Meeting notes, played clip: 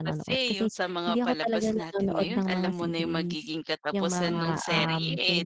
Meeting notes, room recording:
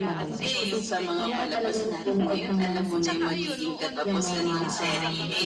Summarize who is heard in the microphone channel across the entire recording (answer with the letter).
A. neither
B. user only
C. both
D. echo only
C